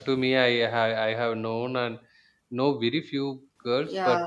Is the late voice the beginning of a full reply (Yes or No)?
No